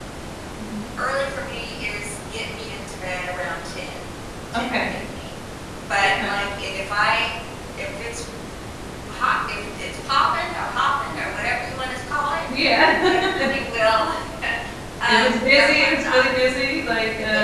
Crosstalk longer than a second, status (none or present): present